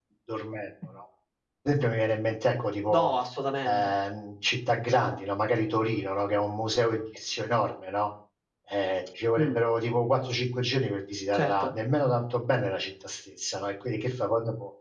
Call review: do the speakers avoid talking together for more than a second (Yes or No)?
Yes